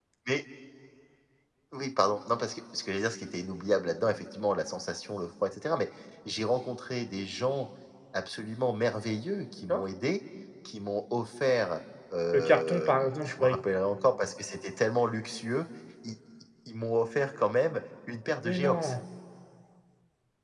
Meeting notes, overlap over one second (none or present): present